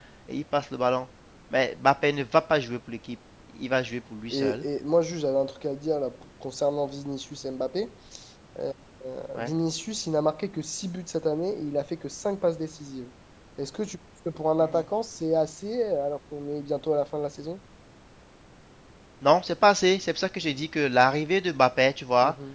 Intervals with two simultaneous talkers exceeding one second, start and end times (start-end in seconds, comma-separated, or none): none